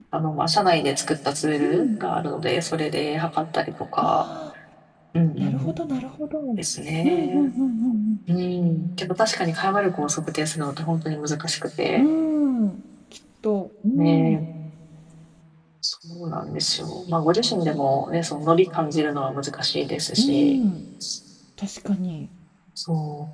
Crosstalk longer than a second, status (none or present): none